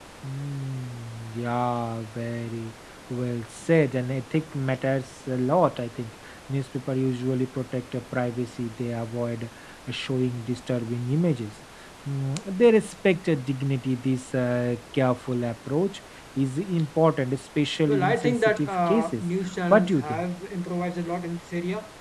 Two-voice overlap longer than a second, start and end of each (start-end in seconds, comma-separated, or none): 17.9-19.2